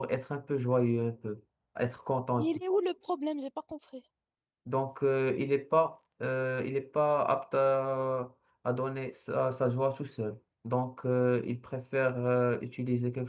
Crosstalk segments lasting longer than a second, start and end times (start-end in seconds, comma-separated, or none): none